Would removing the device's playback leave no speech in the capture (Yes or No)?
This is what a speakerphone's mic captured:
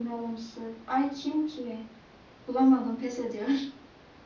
Yes